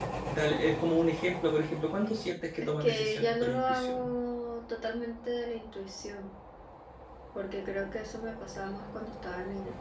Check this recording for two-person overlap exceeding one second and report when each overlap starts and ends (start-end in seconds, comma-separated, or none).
2.8-4.1